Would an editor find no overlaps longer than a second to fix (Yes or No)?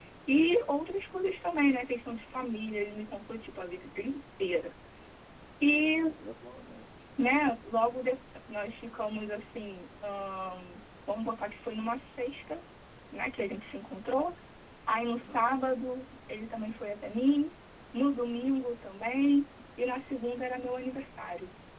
Yes